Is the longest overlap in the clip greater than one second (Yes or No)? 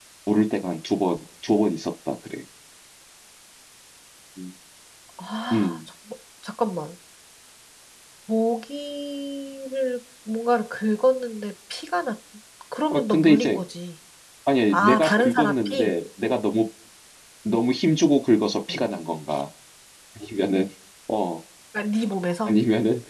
Yes